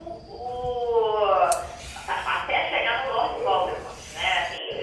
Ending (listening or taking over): listening